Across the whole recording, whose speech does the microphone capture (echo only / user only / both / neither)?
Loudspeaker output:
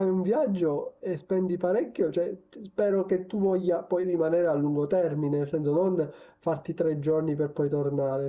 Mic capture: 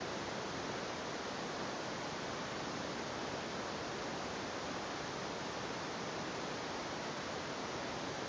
neither